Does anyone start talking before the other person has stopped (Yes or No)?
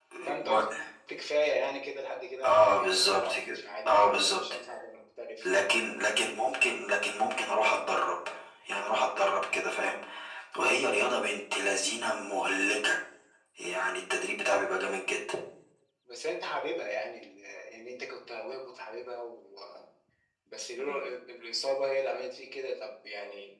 Yes